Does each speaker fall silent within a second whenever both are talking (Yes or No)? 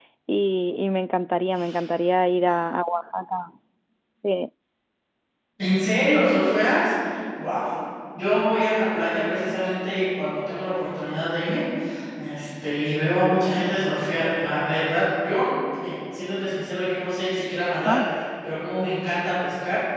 Yes